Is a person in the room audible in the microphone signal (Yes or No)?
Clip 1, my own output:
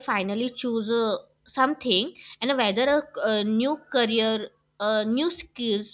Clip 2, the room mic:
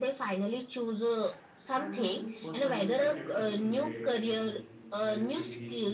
Yes